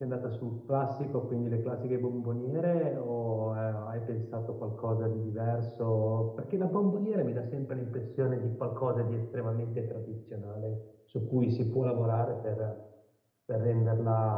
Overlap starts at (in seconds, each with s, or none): none